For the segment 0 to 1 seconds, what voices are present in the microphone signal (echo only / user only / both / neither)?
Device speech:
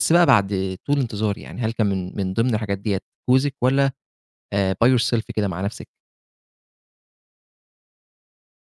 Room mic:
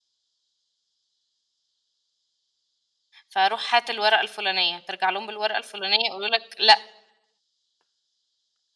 neither